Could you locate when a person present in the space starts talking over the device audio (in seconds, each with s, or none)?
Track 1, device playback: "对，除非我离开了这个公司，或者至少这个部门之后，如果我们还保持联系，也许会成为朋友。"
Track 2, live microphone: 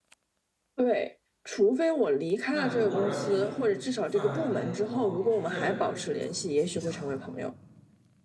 2.5 s